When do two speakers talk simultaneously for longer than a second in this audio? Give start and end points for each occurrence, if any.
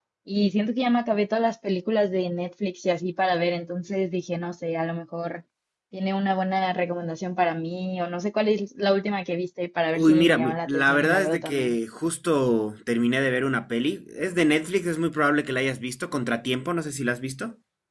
10.0-11.8

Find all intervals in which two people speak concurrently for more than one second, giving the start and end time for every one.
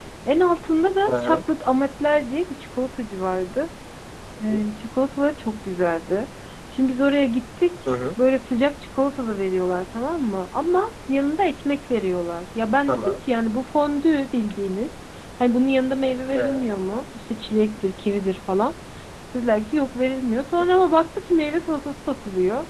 none

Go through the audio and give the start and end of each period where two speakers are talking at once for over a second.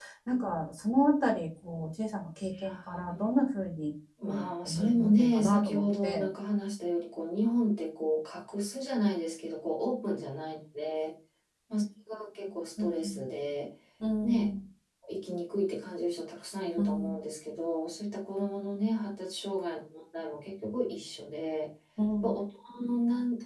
4.3-6.3

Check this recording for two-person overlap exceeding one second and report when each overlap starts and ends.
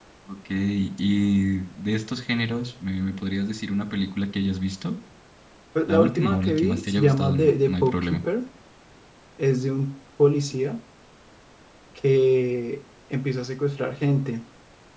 5.9-8.2

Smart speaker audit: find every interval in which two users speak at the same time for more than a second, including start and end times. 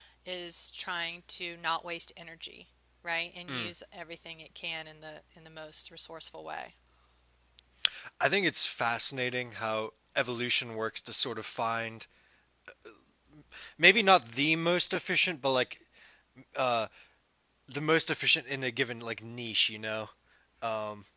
none

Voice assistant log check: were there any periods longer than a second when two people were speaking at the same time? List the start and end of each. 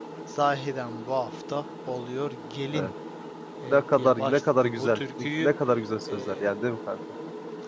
3.7-5.5

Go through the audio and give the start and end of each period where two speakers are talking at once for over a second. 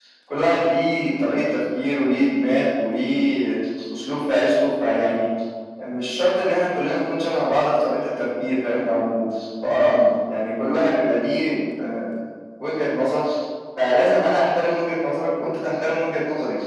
none

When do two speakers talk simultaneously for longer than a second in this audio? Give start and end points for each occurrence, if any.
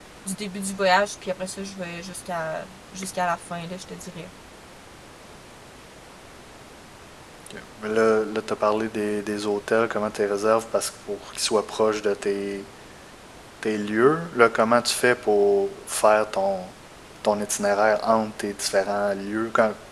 none

